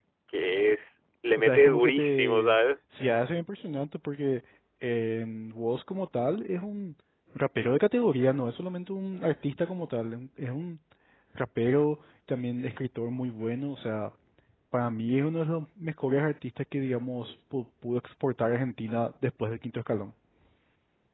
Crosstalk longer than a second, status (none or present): present